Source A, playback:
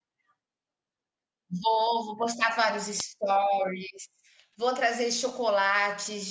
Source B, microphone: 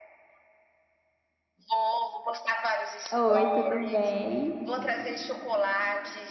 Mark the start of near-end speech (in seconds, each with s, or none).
3.1 s